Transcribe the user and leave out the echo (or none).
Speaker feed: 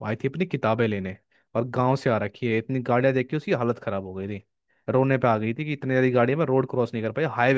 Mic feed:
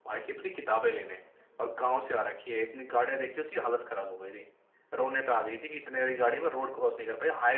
नहीं ना